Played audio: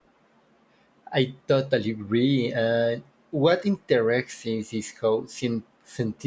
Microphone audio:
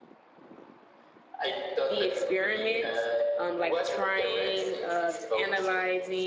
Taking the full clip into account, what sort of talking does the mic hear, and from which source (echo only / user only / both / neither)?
both